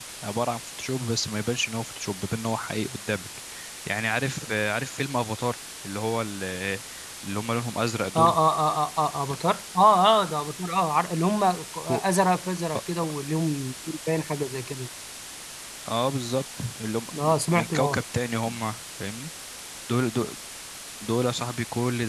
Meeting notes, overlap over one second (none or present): none